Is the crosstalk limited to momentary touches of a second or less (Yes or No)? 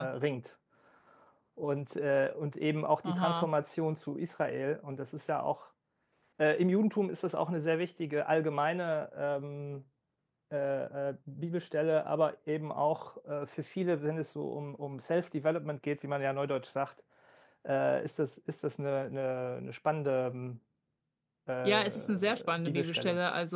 No